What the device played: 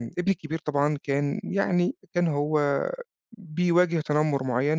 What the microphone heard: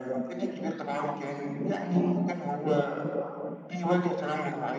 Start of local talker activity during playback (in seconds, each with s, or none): none